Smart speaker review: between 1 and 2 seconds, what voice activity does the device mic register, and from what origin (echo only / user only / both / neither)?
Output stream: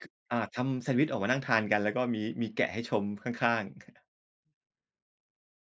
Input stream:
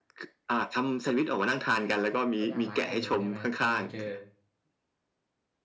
echo only